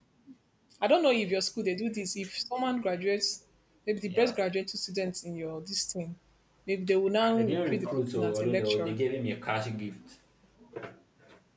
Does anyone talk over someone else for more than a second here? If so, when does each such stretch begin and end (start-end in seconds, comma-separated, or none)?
7.2-9.0